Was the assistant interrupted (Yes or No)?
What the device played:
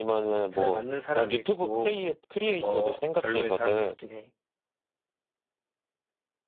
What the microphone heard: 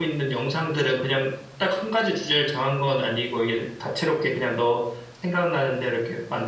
Yes